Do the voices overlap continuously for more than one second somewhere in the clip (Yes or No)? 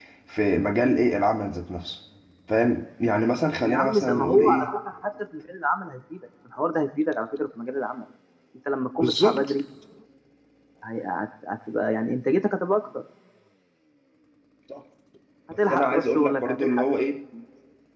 Yes